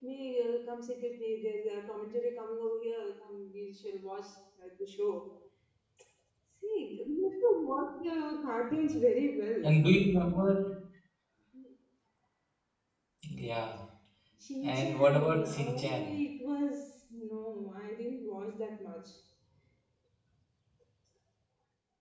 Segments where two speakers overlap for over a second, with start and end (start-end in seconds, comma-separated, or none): 14.6-16.1